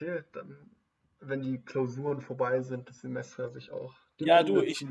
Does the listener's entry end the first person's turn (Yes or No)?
Yes